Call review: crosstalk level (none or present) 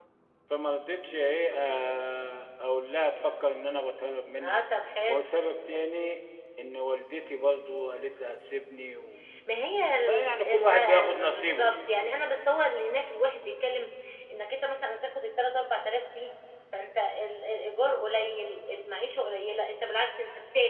present